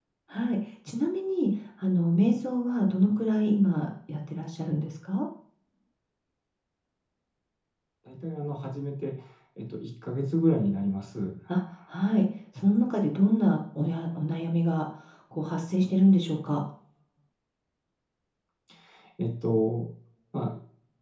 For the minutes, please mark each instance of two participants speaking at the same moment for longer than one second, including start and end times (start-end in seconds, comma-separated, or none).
none